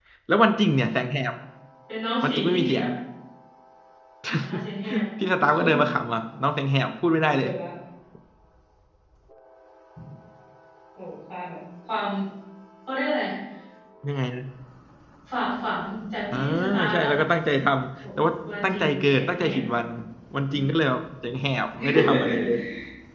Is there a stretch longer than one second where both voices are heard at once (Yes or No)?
Yes